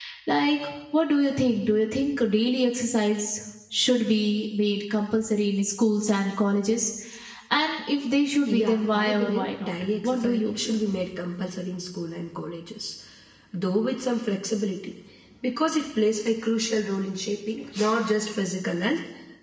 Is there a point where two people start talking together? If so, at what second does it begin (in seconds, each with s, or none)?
8.5 s